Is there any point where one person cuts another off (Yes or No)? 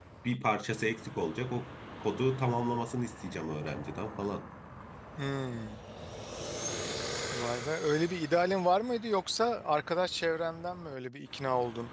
No